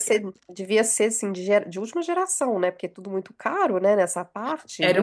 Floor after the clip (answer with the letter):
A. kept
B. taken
B